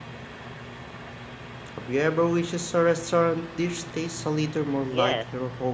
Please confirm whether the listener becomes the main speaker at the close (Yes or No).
Yes